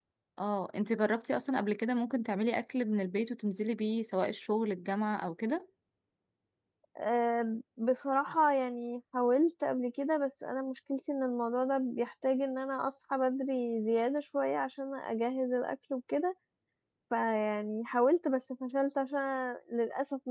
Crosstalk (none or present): none